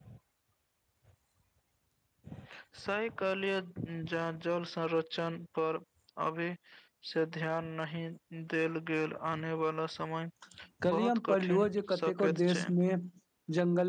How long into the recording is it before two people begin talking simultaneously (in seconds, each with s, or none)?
10.9 s